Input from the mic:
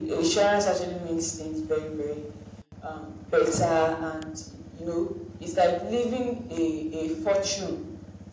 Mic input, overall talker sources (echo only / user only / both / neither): echo only